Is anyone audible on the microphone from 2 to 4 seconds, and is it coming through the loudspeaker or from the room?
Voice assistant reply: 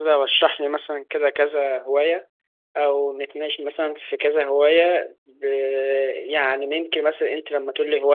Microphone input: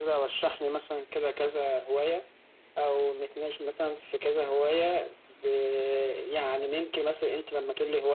echo only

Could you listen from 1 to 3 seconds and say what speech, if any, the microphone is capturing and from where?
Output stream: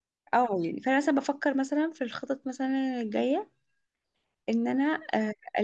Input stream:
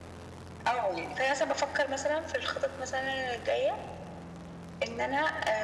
echo only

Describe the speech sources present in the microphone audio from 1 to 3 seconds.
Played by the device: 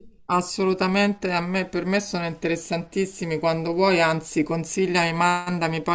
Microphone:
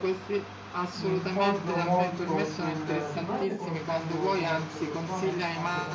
both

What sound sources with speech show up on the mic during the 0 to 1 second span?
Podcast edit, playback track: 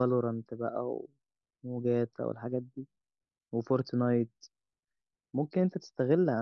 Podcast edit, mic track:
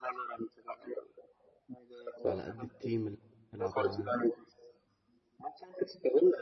echo only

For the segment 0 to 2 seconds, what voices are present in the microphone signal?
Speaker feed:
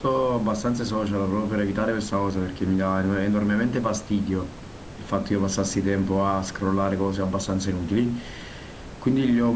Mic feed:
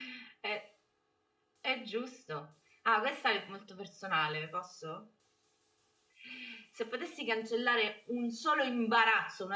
user only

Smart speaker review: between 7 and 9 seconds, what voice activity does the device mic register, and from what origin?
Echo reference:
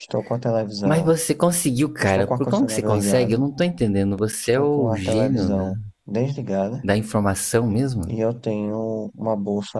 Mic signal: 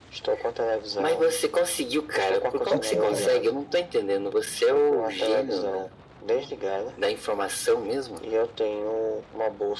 echo only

